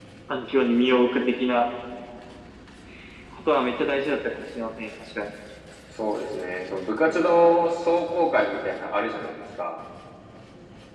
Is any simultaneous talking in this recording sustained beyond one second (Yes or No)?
No